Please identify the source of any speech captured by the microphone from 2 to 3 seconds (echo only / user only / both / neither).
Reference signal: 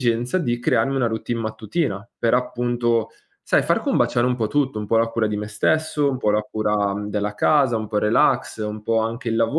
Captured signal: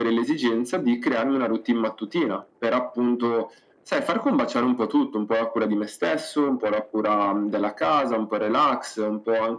echo only